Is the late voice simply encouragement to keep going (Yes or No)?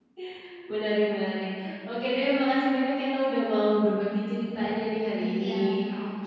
No